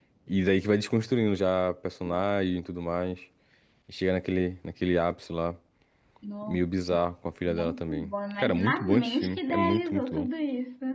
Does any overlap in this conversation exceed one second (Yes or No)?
Yes